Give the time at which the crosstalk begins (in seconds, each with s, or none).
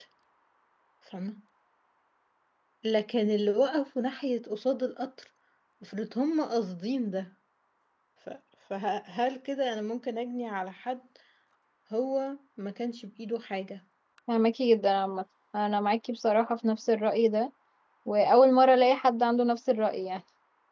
none